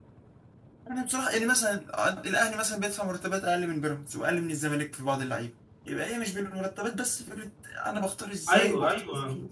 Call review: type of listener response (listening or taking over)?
taking over